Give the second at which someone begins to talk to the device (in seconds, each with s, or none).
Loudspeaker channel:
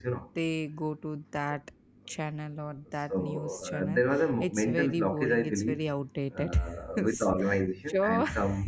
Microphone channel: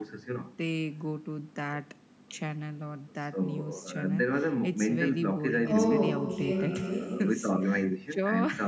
5.6 s